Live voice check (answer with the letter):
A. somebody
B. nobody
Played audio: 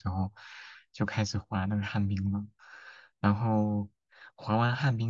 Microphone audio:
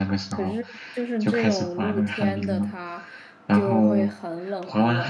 A